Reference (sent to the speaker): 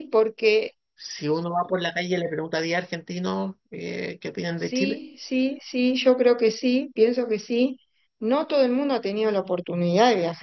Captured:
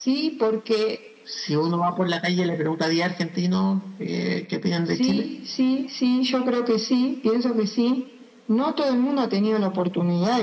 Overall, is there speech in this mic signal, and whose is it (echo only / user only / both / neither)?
echo only